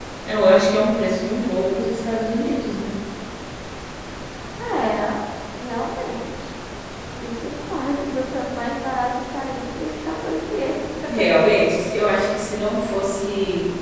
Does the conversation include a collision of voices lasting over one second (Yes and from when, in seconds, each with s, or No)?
No